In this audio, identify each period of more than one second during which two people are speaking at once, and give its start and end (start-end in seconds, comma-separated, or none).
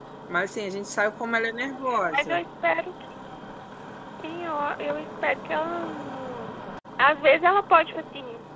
none